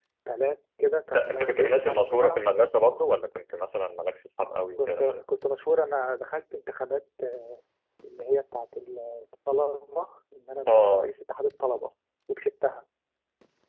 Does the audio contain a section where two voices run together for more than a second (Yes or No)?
Yes